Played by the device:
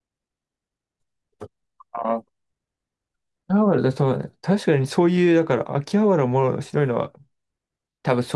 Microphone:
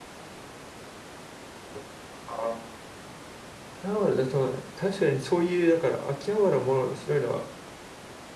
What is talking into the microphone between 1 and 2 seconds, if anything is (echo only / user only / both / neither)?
neither